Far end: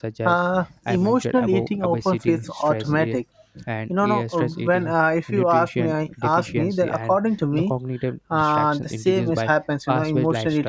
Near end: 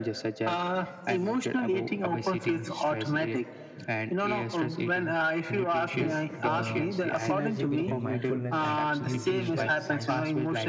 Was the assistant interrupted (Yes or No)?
Yes